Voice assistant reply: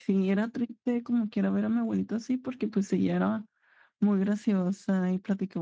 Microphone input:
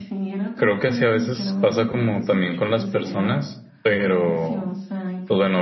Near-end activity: present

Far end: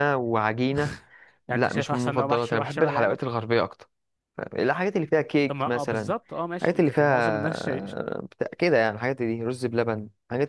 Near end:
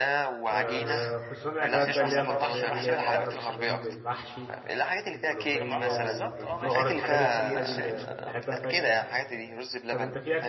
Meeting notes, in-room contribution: present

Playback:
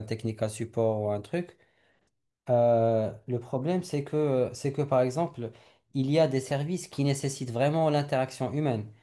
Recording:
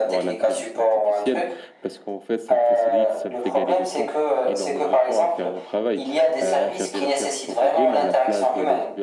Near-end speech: present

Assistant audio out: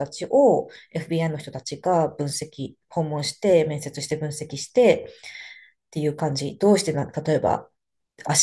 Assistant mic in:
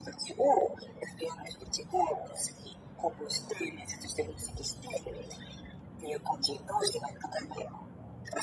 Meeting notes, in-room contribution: none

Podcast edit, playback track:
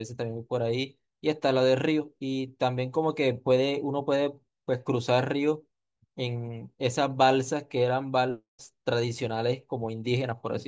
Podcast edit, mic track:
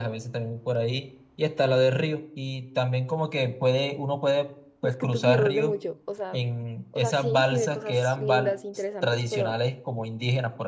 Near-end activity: present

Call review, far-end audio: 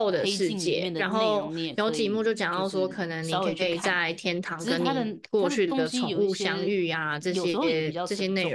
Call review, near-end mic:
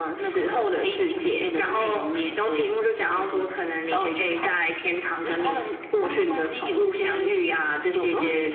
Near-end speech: none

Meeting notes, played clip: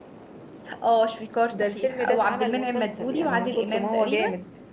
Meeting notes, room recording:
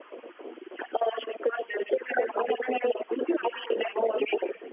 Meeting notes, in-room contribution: none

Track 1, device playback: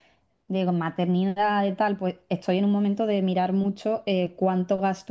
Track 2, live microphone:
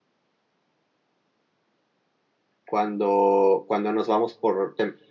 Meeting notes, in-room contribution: present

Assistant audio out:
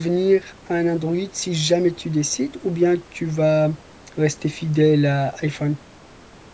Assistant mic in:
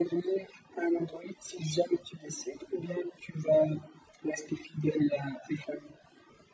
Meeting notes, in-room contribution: none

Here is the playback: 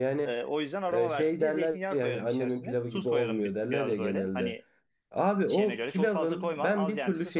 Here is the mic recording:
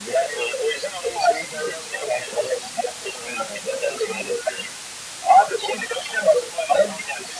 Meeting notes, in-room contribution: none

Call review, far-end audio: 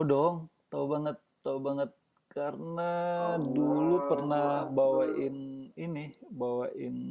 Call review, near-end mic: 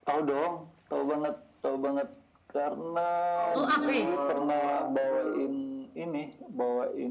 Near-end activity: present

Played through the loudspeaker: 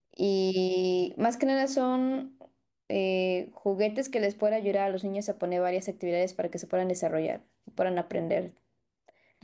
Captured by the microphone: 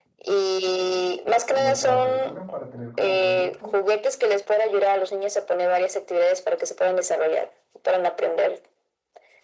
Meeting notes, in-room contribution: present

